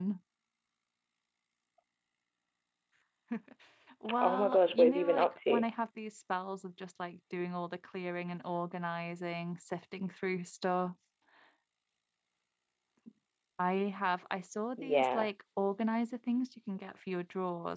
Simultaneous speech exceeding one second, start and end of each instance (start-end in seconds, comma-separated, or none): 4.2-5.7